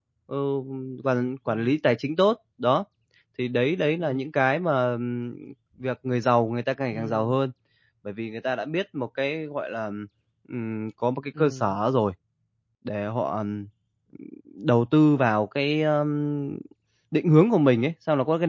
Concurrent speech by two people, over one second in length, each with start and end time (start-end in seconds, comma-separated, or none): none